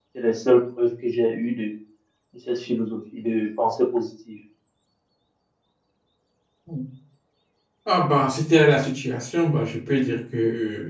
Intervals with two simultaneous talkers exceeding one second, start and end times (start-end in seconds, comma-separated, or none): none